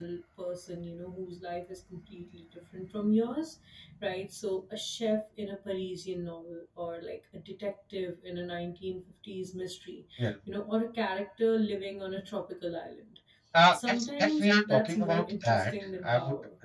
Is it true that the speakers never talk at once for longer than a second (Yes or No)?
No